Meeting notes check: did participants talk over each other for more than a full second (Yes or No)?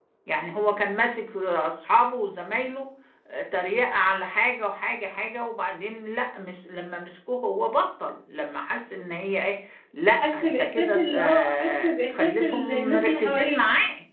Yes